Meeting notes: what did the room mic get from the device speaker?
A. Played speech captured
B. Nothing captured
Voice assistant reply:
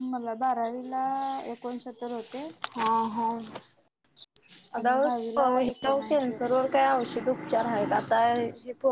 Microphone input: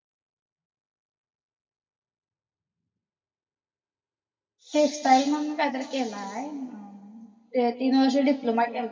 B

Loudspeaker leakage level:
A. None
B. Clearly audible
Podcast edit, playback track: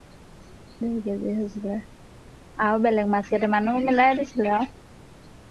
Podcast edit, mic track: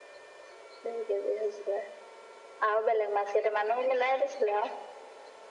B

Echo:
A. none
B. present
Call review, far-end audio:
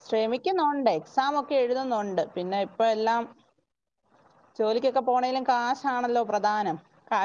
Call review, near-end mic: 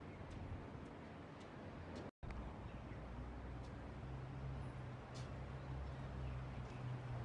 A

